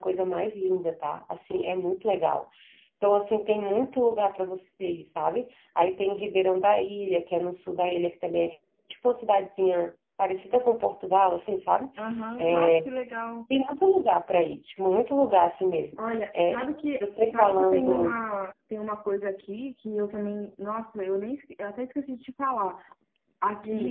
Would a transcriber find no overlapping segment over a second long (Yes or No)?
No